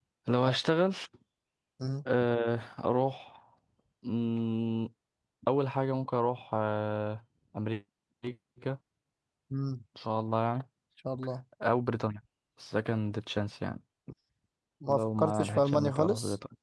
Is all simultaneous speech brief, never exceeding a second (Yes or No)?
No